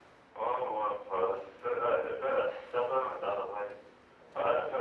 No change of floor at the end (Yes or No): Yes